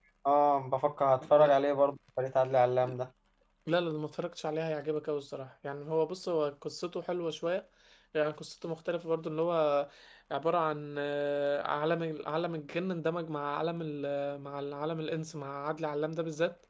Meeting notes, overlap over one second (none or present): none